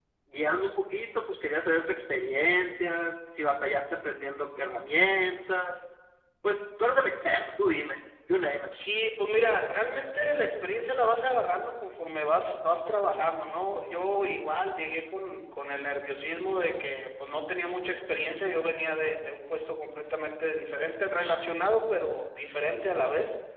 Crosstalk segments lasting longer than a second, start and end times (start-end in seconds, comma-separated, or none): none